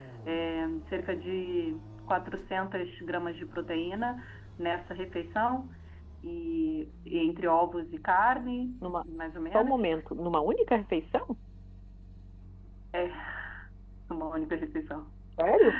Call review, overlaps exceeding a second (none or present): none